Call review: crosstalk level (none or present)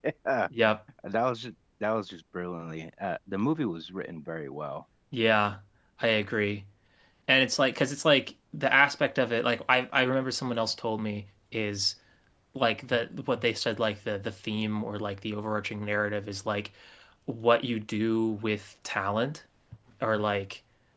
none